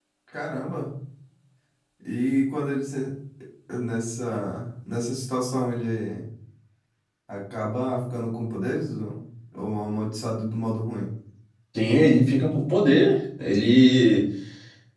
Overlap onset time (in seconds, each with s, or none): none